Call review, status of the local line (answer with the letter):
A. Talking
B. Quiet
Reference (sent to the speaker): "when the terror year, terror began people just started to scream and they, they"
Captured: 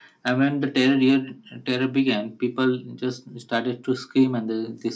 B